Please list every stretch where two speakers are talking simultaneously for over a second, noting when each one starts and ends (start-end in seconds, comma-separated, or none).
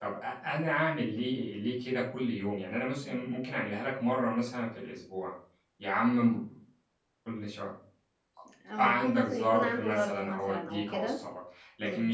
8.8-11.2